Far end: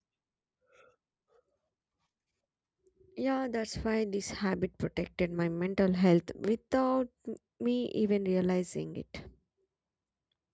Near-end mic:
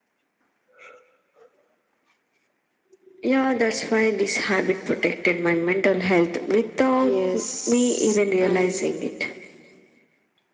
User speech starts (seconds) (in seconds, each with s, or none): 6.8 s